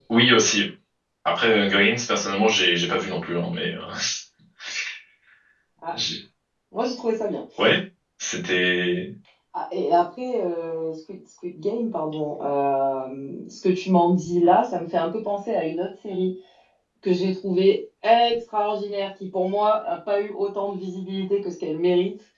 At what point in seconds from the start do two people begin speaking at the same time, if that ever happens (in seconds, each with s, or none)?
none